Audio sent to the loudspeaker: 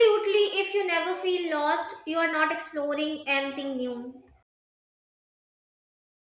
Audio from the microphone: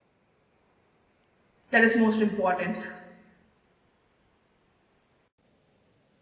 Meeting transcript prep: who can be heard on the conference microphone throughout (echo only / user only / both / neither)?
user only